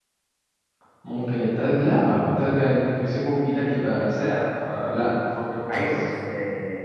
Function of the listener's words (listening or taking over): taking over